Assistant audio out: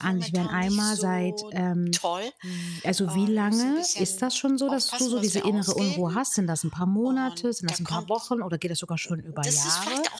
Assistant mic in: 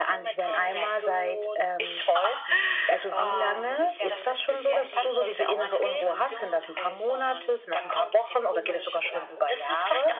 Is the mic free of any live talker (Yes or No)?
No